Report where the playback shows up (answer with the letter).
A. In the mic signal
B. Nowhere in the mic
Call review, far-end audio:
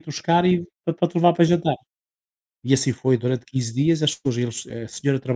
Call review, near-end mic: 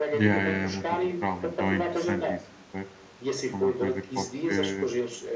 A